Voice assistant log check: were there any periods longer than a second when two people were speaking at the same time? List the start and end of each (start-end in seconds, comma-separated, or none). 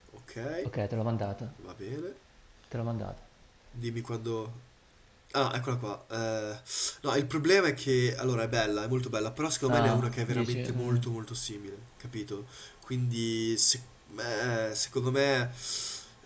9.7-11.0